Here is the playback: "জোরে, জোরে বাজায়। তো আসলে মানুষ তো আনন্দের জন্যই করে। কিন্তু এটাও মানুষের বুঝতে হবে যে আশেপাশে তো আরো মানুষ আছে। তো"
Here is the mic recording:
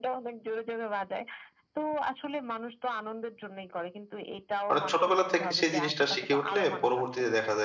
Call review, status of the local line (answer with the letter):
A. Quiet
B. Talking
B